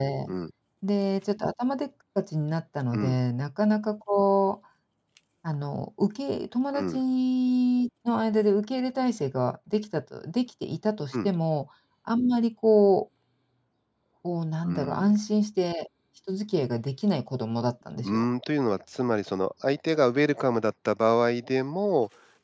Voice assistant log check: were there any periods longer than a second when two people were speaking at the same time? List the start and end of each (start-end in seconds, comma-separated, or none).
none